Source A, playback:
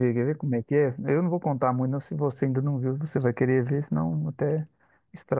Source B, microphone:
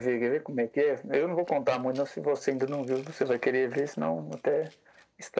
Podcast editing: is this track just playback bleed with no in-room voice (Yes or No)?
Yes